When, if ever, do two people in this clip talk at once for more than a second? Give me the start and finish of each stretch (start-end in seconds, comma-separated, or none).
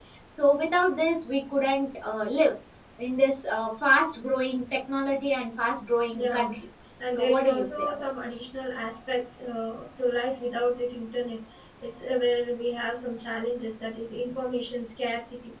7.1-8.4